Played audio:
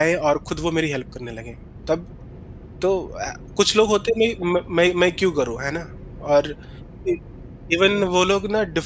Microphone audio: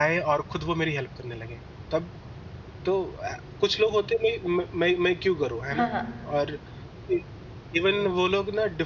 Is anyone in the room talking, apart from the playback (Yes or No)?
Yes